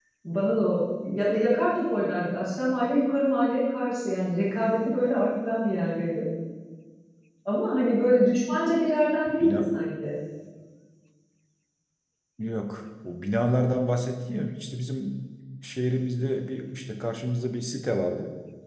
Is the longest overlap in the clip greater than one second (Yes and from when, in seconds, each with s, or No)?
No